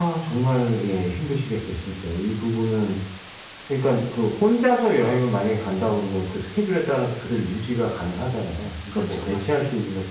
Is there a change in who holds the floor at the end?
No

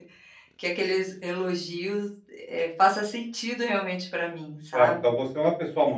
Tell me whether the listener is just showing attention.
No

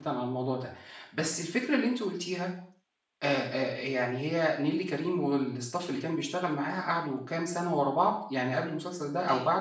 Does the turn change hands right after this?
No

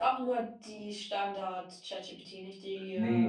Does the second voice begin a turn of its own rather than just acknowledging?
Yes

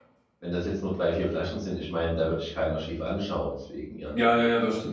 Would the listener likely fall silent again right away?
No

